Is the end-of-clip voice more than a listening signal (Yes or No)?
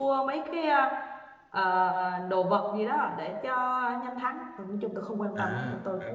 Yes